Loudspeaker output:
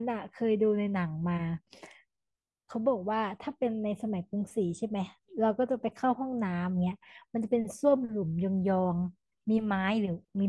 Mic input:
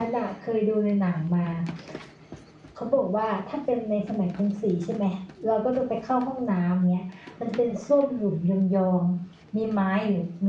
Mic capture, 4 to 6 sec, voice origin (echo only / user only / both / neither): echo only